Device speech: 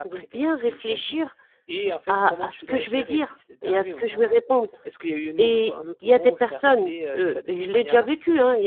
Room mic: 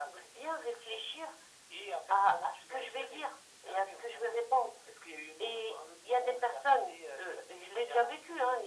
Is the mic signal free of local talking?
Yes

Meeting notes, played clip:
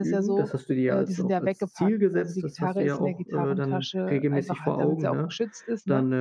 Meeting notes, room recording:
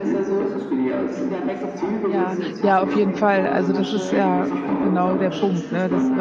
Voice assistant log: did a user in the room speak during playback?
Yes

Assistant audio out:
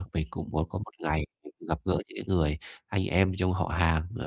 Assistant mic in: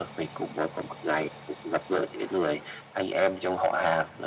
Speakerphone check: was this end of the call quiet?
Yes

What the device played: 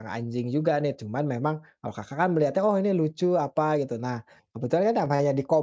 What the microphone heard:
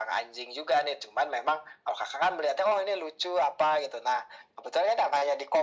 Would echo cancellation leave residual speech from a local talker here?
No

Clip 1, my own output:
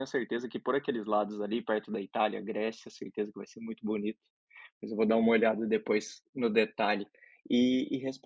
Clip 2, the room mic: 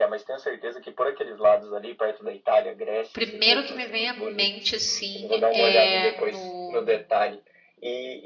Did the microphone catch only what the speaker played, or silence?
No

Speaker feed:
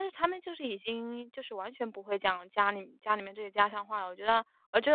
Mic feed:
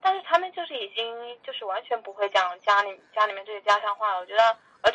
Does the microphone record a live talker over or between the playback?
No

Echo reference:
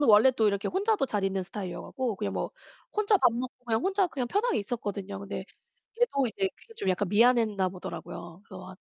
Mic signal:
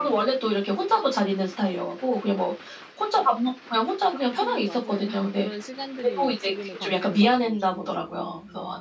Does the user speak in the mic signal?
Yes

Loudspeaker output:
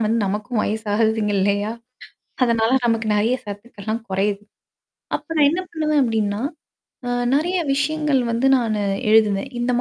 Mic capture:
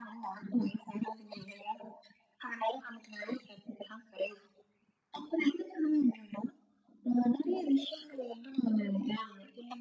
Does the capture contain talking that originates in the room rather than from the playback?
No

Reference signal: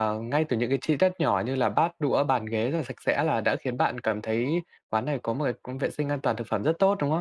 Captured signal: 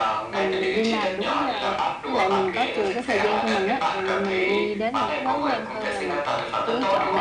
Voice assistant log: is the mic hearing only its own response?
No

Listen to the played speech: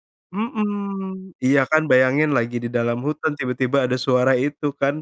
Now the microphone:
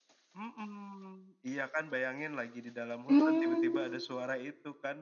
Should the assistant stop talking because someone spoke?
Yes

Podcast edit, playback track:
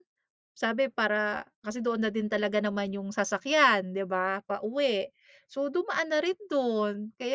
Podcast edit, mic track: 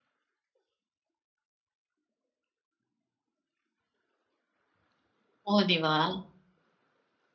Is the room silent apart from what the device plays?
No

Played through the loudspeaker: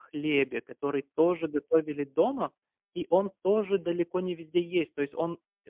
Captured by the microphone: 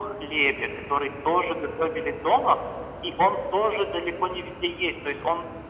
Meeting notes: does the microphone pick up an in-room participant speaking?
No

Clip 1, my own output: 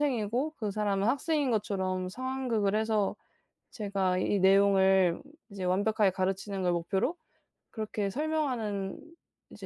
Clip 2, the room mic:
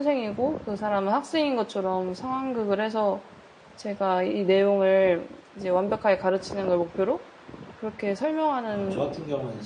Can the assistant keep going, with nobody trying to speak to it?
No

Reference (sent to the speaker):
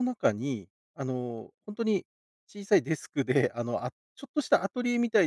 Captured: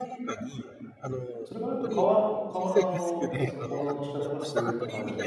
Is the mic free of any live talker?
No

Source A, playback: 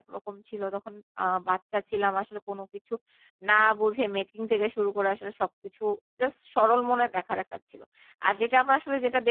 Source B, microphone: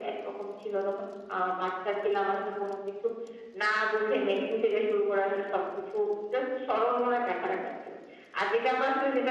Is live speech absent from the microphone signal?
Yes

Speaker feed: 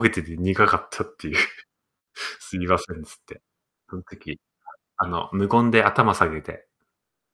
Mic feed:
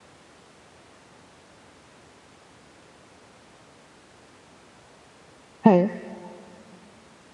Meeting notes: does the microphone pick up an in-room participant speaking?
Yes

